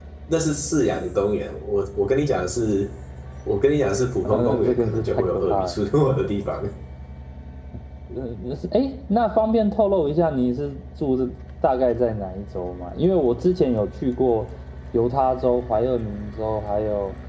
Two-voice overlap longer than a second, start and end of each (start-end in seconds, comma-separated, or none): 4.2-5.8